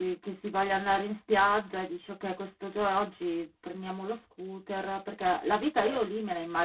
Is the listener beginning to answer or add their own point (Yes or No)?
No